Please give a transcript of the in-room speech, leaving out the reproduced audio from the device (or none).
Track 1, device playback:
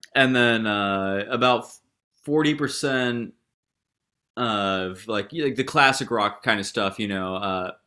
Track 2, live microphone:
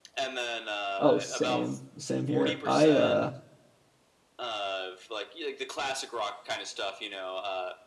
Oh, same, same here. I uh,